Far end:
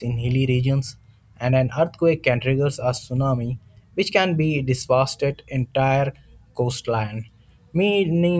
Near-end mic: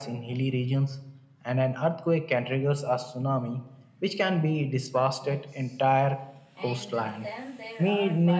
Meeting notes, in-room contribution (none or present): present